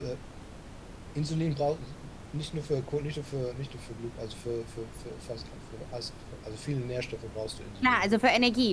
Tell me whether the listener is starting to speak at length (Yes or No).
Yes